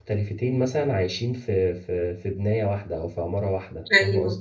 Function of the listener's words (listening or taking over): taking over